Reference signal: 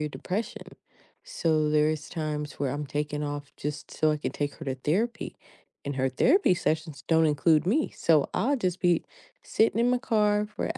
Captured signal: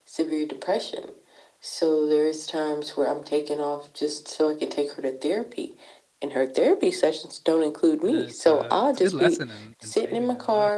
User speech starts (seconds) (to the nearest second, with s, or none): 8 s